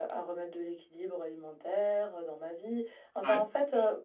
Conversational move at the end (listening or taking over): listening